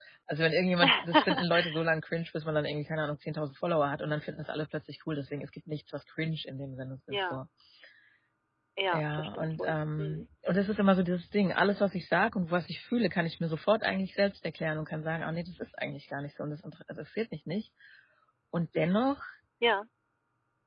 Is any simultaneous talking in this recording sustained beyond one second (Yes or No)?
Yes